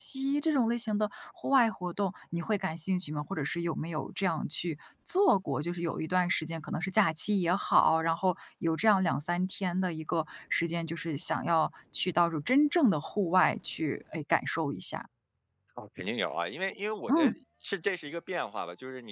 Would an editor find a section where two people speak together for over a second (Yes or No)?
No